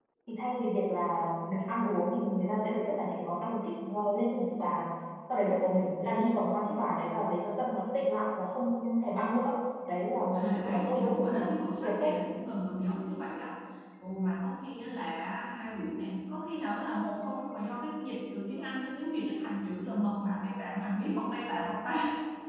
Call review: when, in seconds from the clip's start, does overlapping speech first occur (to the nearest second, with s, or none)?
10 s